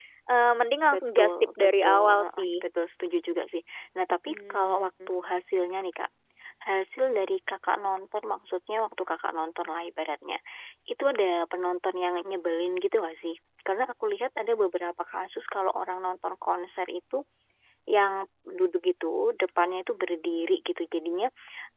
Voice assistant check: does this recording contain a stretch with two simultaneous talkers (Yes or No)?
Yes